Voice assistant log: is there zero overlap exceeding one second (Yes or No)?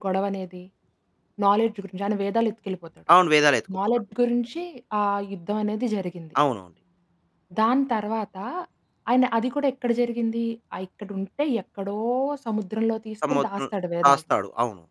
Yes